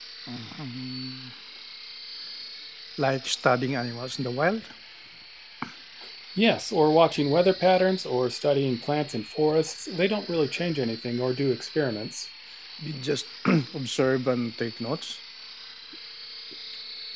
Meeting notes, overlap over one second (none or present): none